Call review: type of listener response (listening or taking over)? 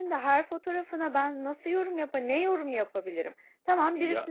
listening